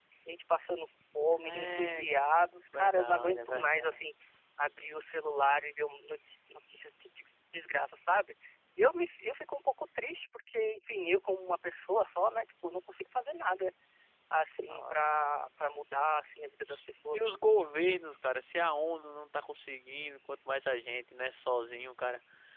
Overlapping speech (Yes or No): Yes